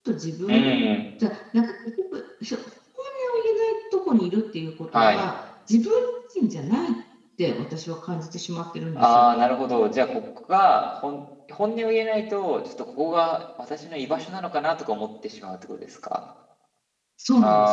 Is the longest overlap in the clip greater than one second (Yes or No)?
No